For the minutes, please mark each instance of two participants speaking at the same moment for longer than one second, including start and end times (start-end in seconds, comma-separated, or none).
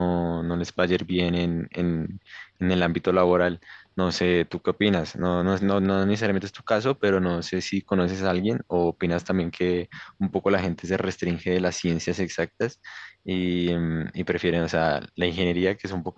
none